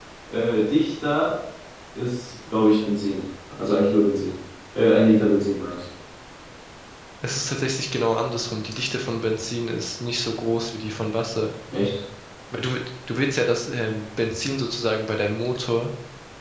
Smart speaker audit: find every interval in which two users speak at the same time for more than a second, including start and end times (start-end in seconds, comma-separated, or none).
none